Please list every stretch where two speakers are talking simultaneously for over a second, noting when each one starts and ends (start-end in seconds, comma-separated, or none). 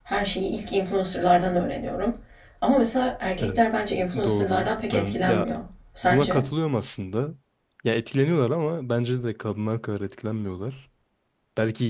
4.2-5.5